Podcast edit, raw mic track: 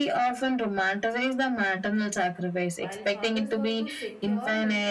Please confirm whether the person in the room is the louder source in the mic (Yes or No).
No